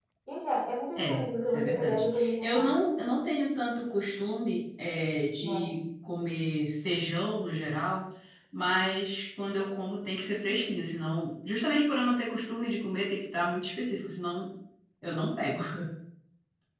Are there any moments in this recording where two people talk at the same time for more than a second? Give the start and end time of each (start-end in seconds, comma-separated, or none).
1.0-2.7